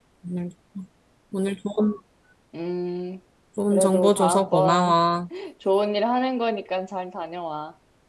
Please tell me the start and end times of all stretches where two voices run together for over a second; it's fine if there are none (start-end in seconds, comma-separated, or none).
3.7-4.9